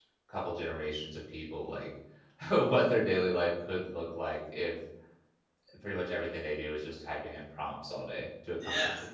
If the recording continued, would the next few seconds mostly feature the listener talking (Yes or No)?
Yes